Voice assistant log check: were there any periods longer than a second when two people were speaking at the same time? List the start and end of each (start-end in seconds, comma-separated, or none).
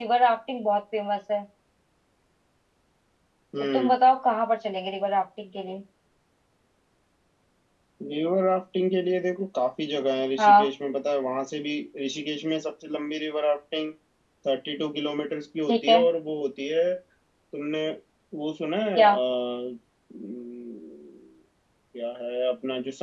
none